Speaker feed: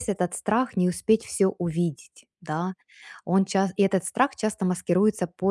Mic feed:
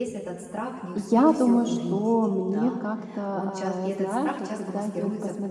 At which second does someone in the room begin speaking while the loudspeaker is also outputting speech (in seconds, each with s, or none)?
1.0 s